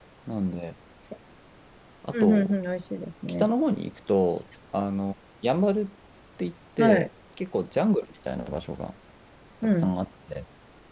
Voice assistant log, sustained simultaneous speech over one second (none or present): none